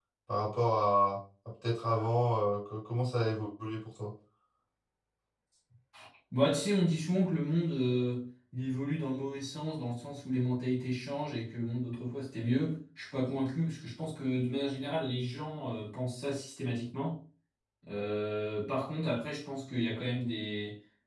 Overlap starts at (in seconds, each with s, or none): none